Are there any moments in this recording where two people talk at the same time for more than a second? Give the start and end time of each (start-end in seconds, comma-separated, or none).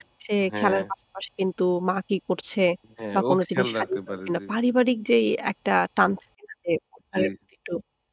3.1-4.6